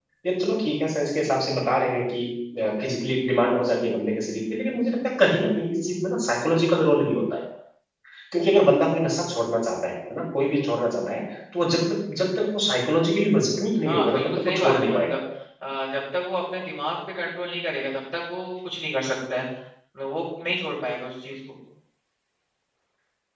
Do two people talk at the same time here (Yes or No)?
Yes